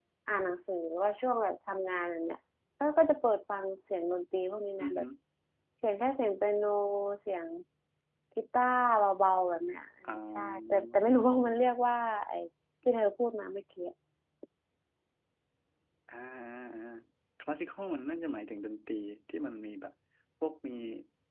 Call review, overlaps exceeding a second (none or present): present